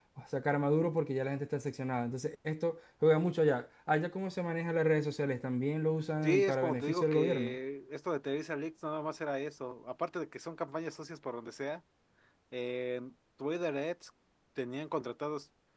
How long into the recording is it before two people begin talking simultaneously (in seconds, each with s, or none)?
6.2 s